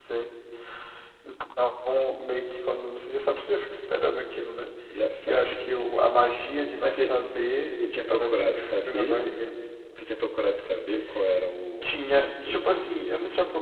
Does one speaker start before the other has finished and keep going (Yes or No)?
Yes